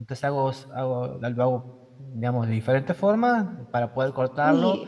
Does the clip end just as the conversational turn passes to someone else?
No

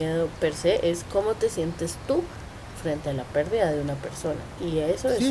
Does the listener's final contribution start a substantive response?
Yes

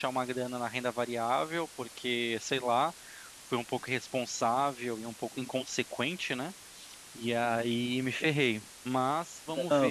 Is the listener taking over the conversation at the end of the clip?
Yes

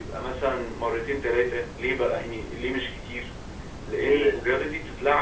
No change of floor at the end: Yes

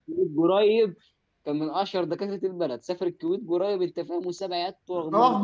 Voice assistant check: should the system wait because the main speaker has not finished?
No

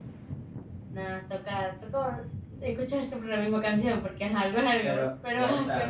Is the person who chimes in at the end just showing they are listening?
No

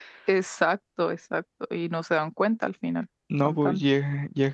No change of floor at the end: No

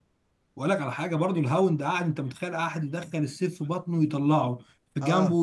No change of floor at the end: Yes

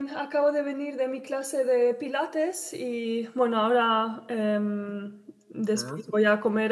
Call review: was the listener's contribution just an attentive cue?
Yes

